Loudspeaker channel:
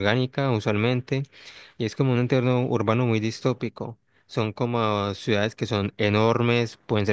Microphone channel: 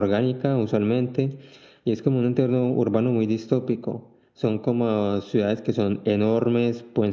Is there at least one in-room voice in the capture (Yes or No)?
No